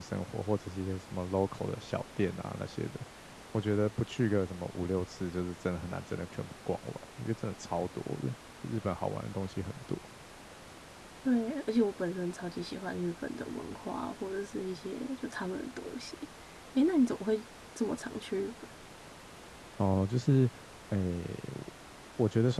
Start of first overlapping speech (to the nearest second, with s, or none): none